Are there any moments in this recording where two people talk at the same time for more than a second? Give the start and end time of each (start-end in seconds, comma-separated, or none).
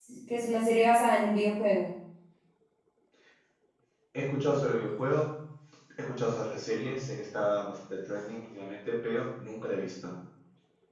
none